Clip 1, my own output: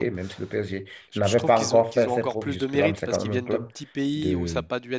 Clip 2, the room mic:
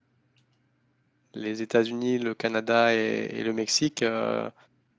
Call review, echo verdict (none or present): none